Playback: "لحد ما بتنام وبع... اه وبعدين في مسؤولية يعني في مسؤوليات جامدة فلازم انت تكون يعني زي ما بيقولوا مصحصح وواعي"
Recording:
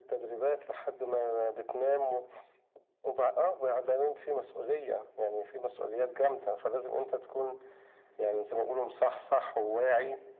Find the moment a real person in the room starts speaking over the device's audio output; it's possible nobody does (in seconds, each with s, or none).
none